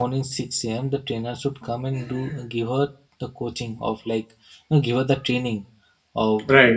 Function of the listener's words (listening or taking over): listening